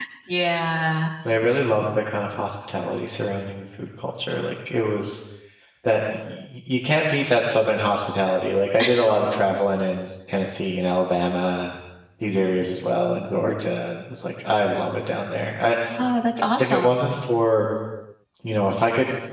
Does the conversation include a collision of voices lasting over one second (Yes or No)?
No